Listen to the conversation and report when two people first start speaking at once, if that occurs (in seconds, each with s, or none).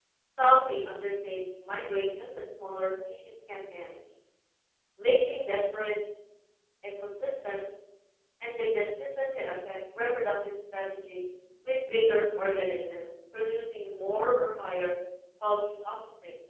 none